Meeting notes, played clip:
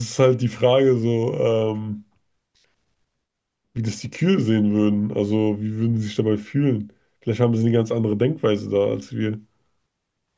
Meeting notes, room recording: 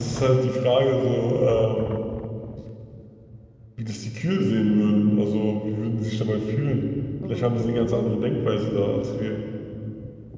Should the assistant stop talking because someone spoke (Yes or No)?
Yes